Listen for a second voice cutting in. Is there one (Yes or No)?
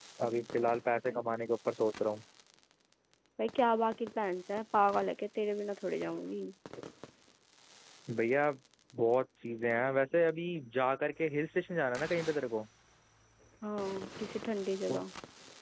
No